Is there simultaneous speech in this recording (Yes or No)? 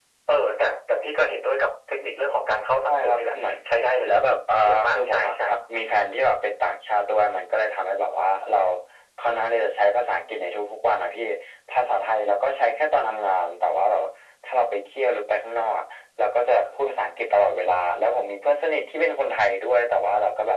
Yes